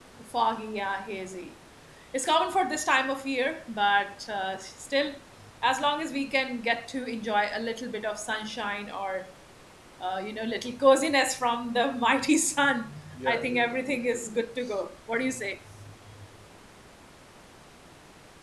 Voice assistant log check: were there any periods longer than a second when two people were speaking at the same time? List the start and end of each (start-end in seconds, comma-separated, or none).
13.2-14.4